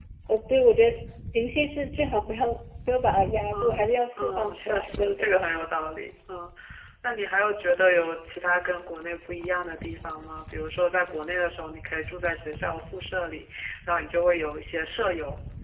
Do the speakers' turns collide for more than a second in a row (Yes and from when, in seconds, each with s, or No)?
Yes, from 3.5 s